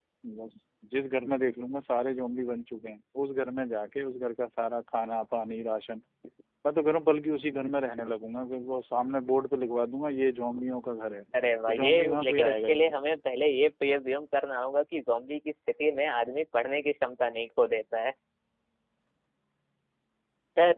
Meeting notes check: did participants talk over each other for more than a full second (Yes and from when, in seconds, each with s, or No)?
Yes, from 11.3 s